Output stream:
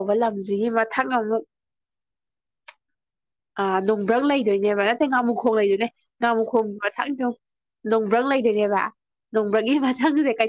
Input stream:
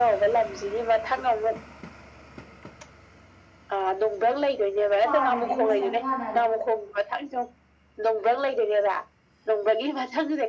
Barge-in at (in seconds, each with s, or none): 5.0 s